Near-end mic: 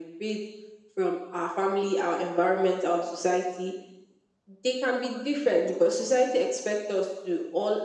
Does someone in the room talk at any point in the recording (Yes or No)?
No